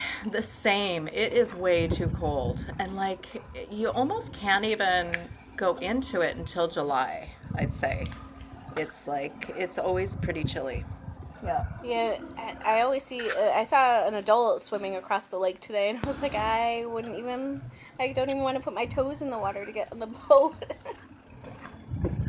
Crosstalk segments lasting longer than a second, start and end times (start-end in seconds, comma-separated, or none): none